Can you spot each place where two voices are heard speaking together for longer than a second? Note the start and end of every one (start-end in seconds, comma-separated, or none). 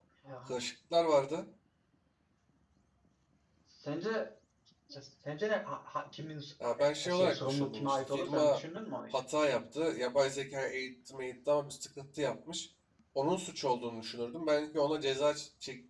6.6-8.6